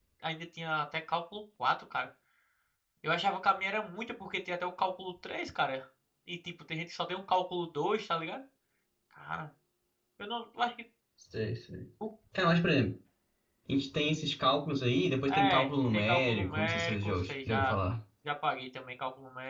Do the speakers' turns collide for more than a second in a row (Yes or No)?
Yes